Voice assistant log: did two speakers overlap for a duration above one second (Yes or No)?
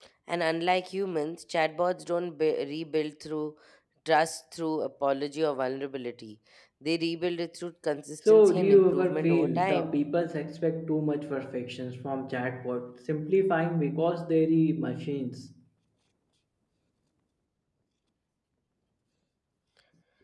Yes